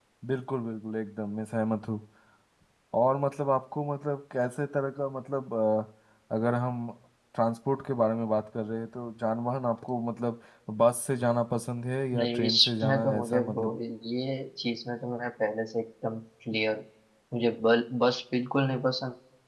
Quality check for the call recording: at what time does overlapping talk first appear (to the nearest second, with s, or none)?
12 s